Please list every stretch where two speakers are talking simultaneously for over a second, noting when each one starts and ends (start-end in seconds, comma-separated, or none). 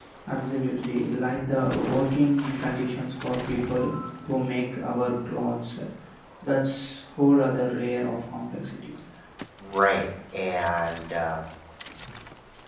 none